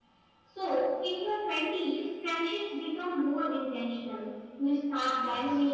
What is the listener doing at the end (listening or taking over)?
listening